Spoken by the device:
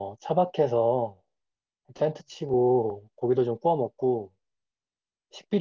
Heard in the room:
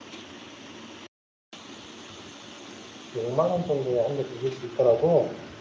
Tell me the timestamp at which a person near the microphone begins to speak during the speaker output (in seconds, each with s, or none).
3.1 s